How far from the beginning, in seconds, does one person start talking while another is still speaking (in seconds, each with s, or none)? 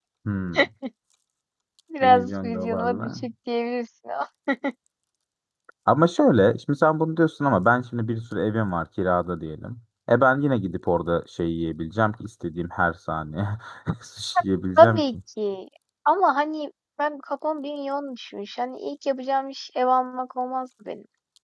2.0 s